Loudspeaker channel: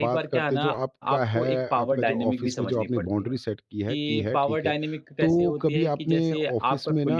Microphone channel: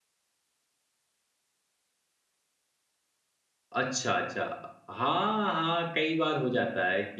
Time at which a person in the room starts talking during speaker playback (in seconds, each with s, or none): 3.7 s